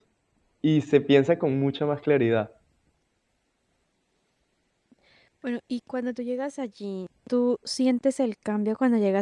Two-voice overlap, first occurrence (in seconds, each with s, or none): none